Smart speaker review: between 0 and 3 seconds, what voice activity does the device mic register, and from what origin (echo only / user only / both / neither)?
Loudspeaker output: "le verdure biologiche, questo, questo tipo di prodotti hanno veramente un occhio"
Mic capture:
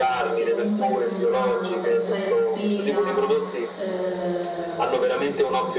both